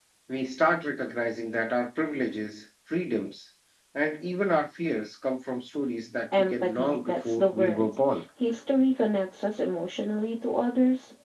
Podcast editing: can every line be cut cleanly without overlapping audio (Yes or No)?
No